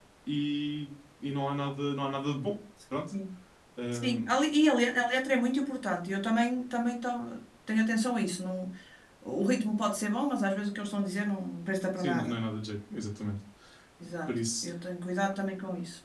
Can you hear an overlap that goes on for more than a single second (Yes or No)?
No